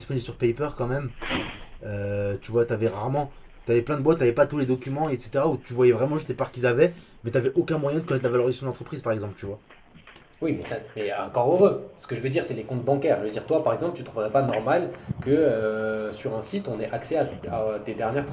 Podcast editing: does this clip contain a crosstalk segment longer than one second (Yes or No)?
No